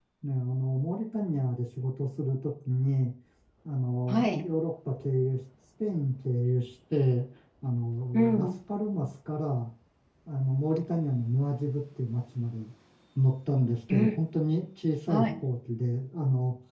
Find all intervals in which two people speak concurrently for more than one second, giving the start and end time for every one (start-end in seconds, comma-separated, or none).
none